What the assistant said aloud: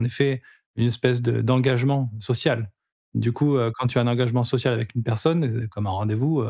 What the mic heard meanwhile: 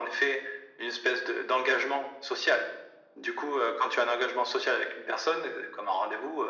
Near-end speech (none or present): none